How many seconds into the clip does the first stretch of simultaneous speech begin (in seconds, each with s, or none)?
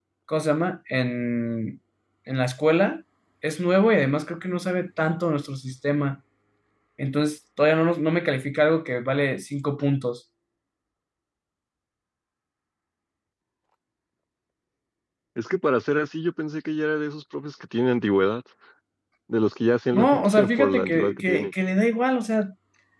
19.9 s